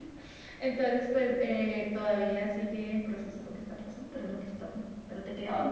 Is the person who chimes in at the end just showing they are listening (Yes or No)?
No